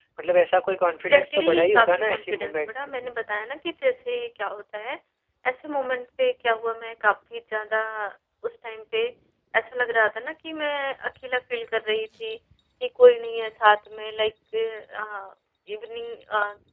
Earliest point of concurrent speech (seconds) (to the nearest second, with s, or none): 1 s